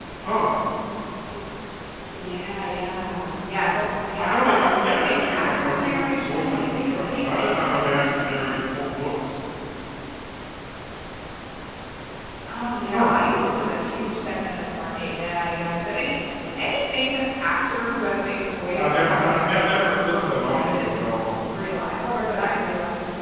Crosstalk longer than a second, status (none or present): present